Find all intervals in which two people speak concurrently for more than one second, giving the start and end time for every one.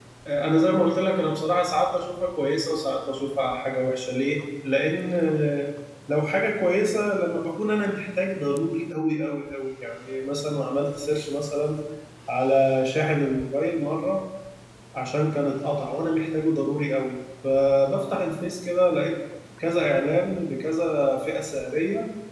none

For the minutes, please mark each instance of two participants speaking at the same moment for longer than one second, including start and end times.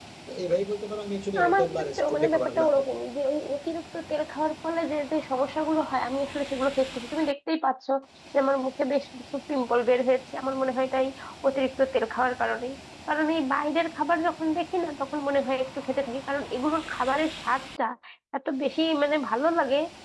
1.5-2.8

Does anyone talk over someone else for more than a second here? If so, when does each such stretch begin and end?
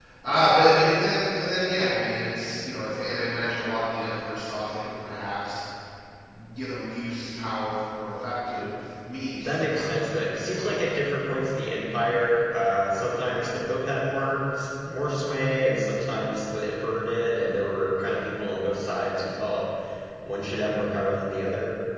9.4-10.8

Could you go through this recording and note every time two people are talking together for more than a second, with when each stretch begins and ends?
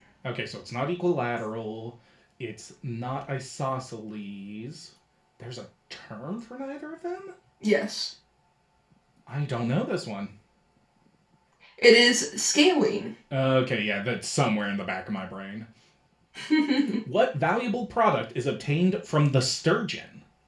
none

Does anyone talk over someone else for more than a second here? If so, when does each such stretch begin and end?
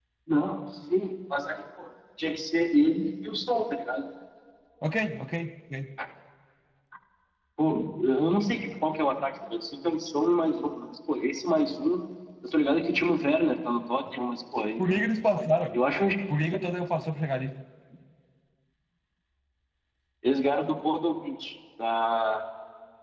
none

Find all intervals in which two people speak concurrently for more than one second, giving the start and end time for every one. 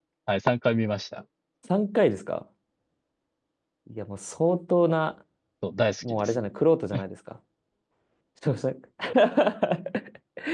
none

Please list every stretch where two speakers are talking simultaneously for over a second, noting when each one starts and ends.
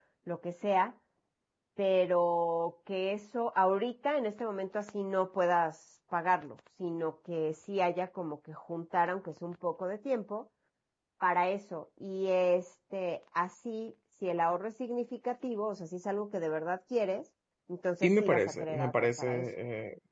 18.0-19.4

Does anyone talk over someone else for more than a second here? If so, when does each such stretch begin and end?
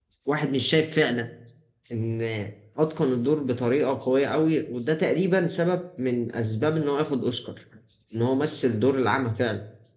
none

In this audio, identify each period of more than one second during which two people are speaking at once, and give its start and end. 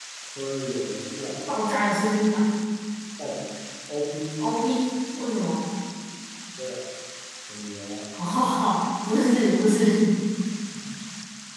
none

